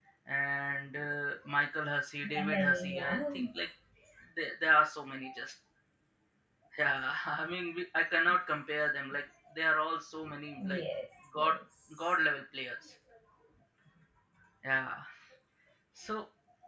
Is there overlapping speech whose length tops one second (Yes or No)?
Yes